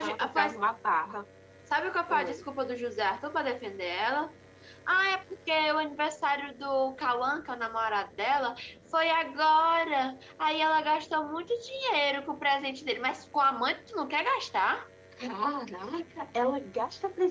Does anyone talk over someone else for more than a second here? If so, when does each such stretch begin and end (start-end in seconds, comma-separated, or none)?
none